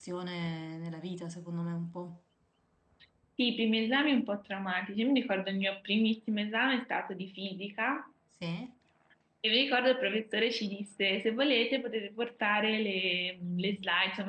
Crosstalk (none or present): none